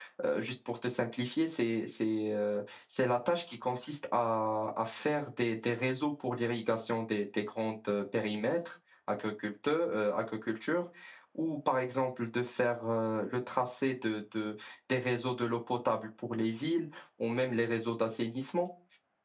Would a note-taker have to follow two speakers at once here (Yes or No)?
No